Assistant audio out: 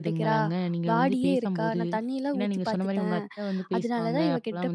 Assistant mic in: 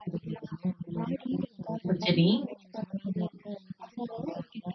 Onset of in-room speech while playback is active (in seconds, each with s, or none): 1.9 s